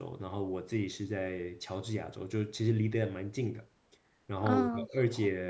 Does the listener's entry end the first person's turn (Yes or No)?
No